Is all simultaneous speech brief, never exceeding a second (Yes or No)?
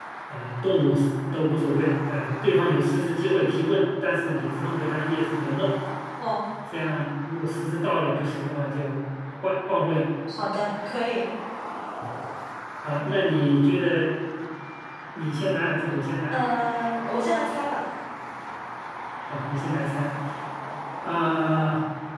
Yes